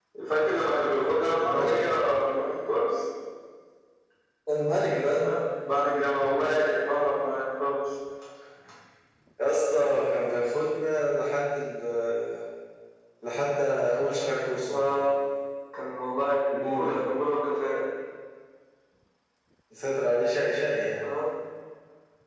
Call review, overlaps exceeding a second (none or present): none